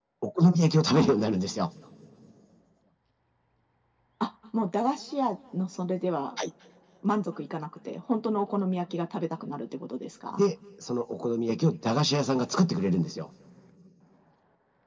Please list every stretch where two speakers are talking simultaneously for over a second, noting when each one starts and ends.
none

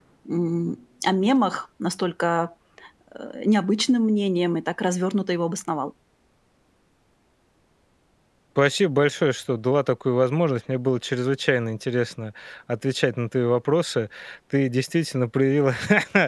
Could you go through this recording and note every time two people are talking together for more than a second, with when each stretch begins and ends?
none

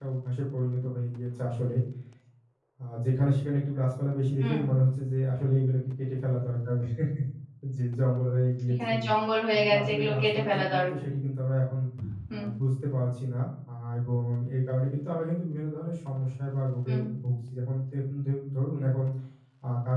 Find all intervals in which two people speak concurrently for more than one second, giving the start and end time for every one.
9.5-10.9

